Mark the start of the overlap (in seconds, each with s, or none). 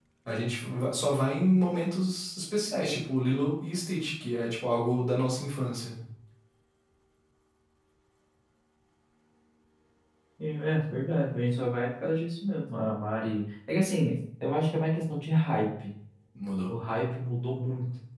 none